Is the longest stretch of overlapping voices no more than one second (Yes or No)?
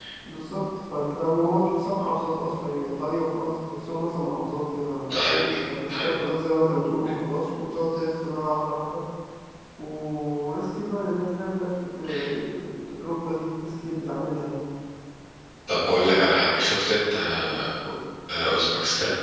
Yes